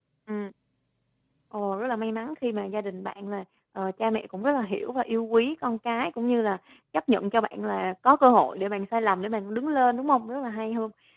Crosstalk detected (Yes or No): No